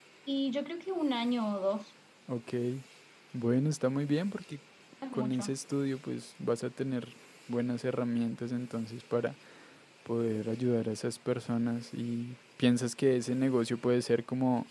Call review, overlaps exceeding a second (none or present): none